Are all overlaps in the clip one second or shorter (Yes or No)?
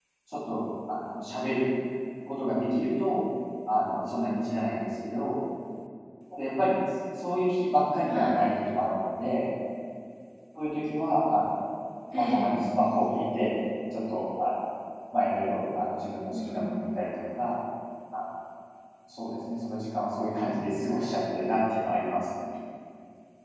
Yes